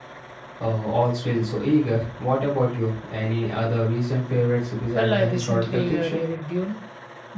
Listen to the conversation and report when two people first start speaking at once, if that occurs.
4.9 s

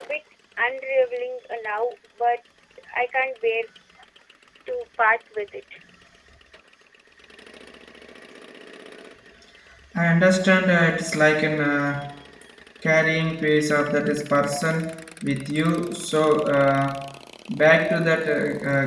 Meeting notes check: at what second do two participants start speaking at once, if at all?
none

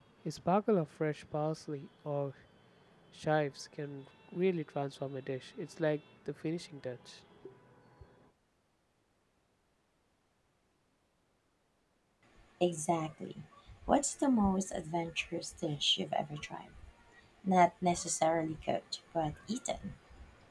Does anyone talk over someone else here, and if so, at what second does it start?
none

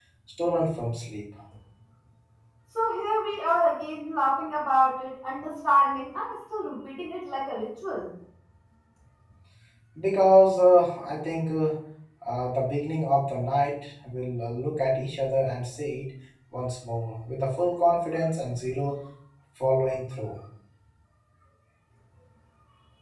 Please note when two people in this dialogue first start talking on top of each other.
none

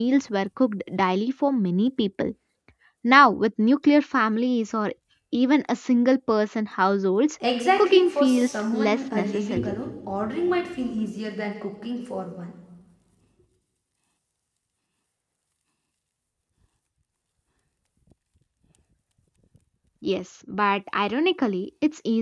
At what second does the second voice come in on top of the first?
7.8 s

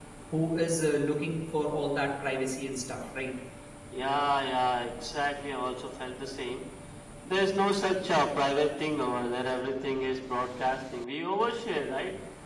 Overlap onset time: none

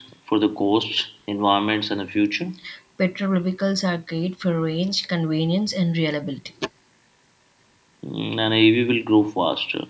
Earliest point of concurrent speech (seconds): none

